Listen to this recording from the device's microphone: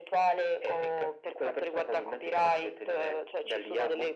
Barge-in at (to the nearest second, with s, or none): none